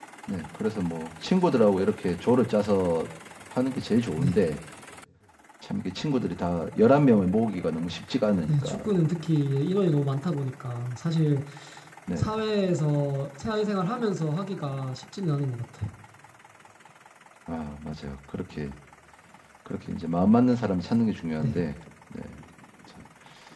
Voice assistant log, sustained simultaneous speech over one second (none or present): none